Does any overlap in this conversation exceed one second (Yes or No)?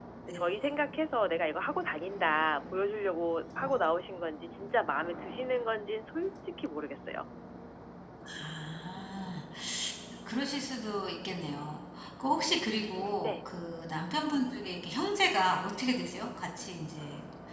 No